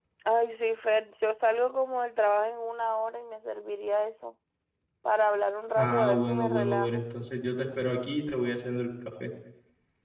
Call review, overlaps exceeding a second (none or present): present